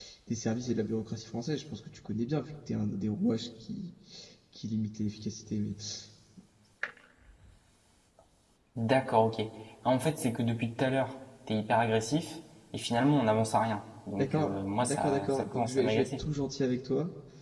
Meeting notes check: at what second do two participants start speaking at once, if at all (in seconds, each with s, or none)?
14.2 s